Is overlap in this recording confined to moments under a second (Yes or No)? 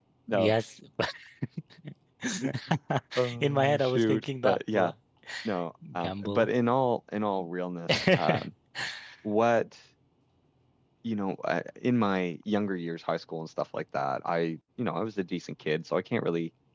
No